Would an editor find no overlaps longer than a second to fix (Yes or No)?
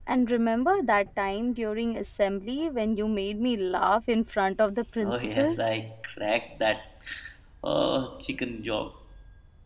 Yes